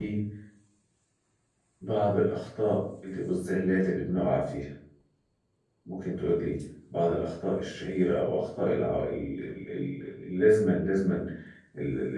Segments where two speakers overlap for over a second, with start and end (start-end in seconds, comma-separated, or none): none